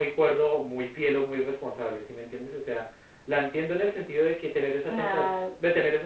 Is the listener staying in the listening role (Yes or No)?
Yes